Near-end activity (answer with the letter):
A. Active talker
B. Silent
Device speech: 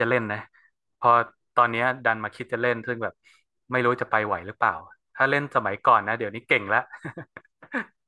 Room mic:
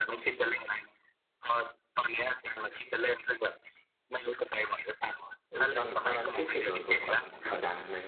A